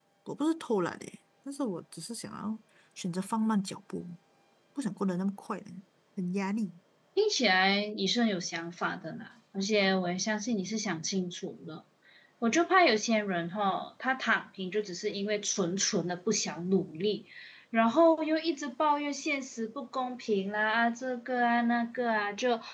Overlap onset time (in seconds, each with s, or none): none